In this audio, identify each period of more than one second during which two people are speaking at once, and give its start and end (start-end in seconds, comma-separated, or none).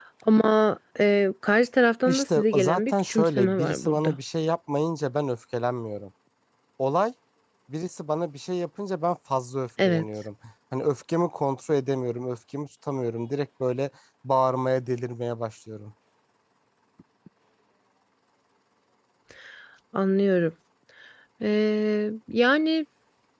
2.0-4.2